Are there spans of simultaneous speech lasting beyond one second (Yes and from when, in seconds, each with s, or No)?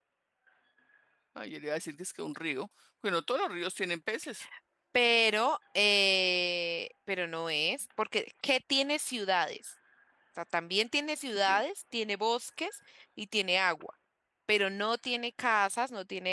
No